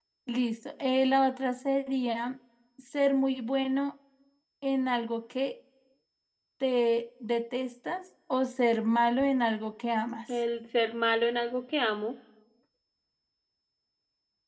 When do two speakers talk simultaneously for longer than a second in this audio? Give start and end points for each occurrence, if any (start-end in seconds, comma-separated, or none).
none